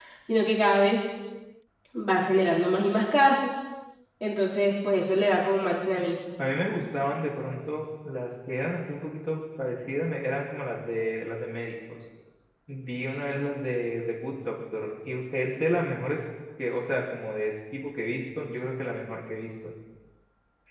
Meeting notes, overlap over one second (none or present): none